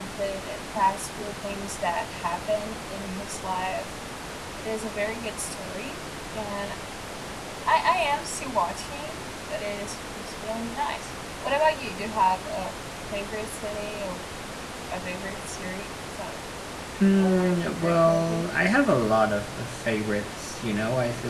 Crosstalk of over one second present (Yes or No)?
Yes